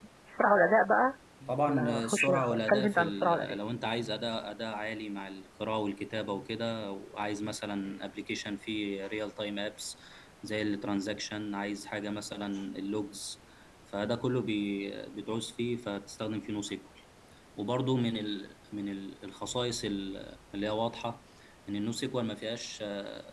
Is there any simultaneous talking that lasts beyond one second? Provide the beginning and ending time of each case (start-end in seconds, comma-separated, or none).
1.6-3.6